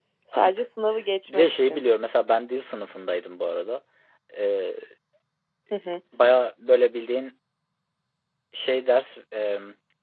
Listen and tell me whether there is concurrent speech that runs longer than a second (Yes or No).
No